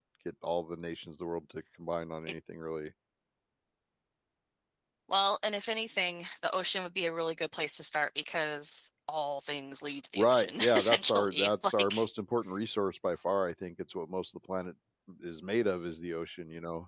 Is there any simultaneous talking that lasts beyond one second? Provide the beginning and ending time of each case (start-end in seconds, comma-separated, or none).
10.2-11.9